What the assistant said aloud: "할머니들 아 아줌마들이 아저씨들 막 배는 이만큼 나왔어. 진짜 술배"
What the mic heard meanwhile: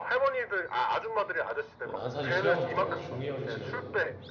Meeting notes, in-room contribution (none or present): present